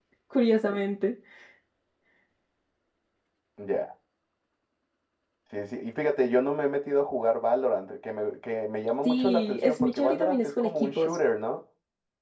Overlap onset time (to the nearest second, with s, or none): 9 s